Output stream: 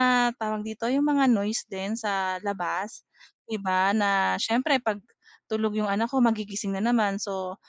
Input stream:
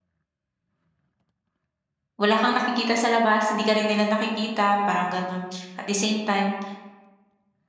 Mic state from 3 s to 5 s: user only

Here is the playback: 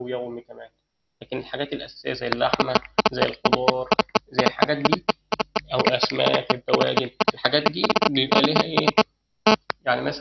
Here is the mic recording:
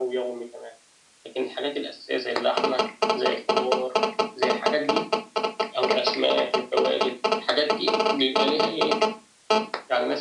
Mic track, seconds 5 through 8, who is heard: echo only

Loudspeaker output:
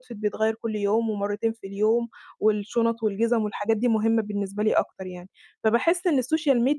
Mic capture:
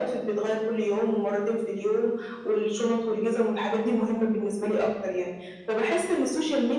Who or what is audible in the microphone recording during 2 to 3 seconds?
echo only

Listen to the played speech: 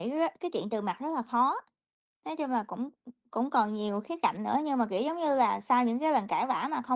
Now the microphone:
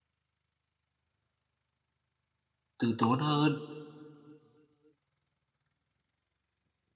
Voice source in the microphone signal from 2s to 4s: user only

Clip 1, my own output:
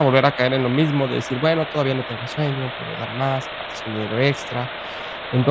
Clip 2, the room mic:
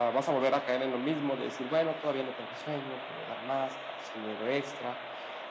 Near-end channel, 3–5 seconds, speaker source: echo only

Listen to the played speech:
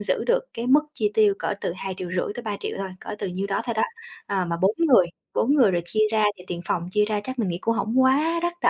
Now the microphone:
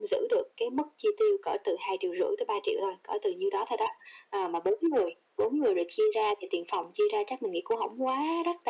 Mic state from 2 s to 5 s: echo only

